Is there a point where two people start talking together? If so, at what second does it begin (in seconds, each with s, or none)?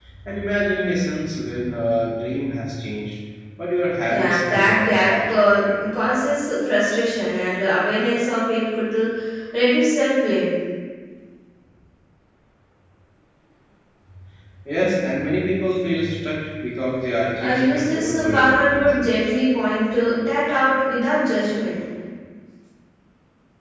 4.1 s